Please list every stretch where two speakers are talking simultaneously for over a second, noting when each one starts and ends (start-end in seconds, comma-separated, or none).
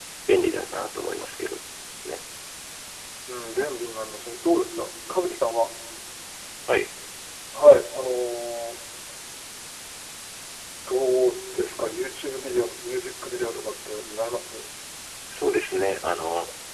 none